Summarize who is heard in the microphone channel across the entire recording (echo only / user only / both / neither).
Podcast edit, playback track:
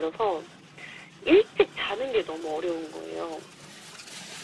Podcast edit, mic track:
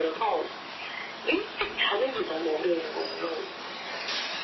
echo only